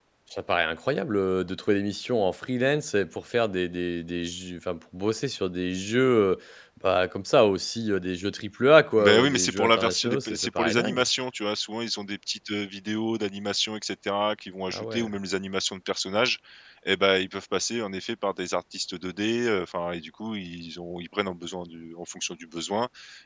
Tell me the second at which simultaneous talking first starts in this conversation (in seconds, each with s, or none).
9.0 s